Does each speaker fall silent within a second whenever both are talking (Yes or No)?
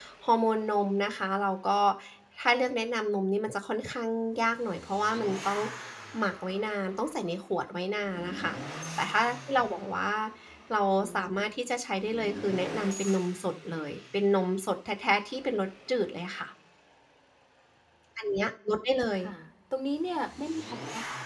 Yes